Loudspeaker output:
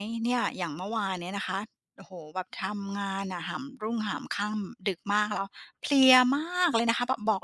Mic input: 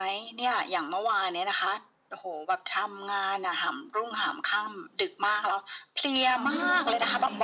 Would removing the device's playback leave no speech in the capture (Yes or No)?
No